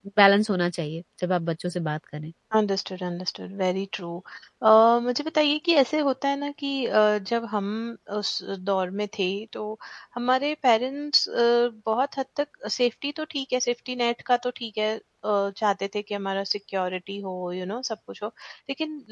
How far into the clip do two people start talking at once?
none

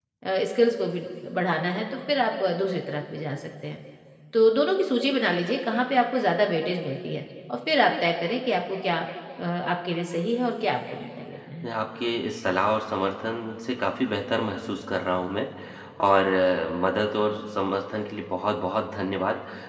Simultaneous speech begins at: none

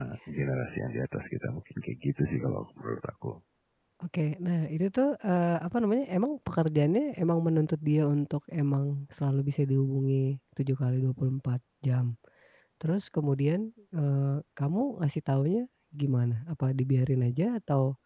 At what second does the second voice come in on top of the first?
none

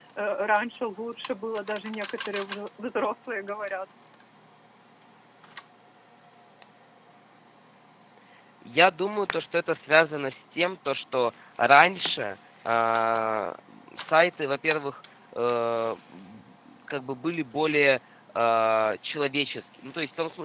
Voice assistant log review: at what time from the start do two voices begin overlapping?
none

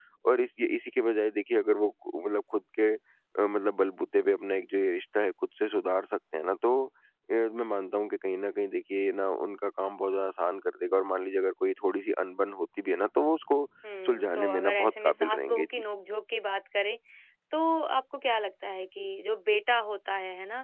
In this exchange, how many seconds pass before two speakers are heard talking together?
14.1 s

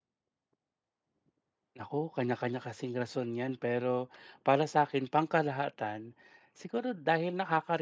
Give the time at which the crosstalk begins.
none

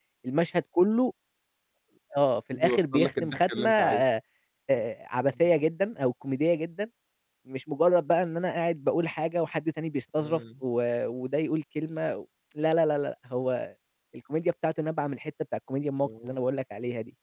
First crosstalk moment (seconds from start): 2.6 s

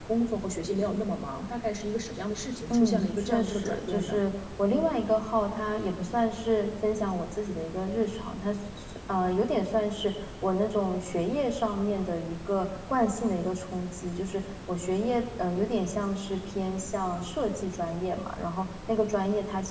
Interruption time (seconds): 2.7 s

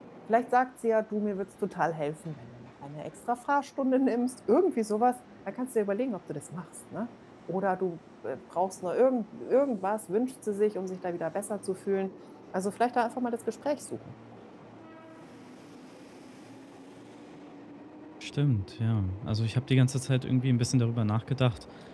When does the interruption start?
none

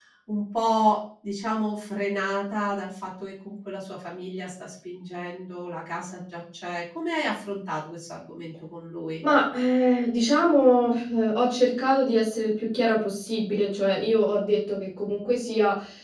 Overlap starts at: none

